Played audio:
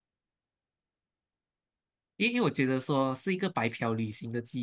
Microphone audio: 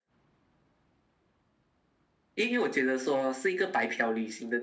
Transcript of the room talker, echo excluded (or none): none